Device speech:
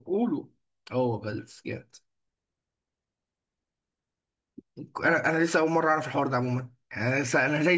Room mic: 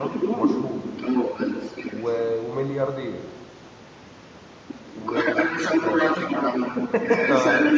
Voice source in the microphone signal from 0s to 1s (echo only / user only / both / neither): both